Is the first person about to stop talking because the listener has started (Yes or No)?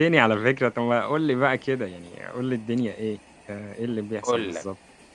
Yes